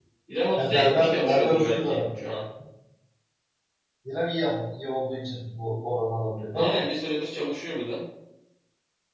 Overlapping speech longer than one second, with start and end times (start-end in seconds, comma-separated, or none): 0.6-2.0